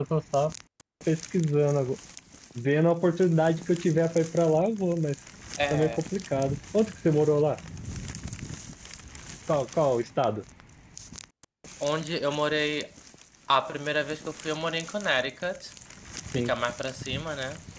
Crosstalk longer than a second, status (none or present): none